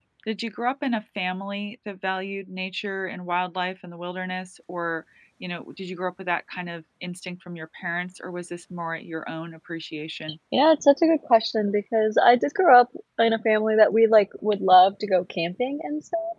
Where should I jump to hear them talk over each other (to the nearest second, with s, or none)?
none